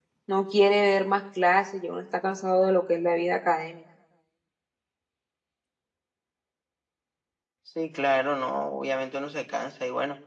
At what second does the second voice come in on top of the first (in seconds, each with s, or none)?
none